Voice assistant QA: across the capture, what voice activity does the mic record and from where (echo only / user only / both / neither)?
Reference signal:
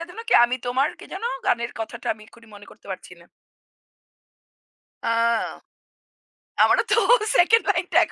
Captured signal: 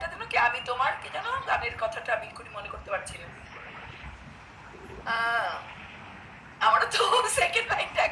echo only